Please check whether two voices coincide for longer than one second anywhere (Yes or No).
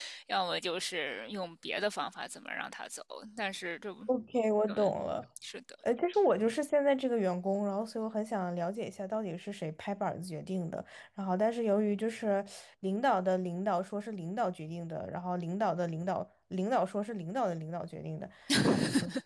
No